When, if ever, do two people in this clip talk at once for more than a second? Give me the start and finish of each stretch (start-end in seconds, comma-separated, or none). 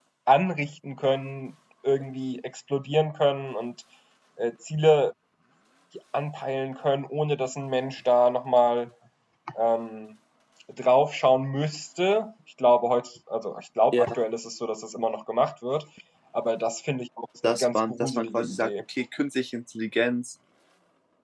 17.4-18.7